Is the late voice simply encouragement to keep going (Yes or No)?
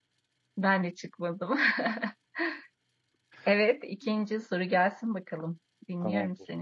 No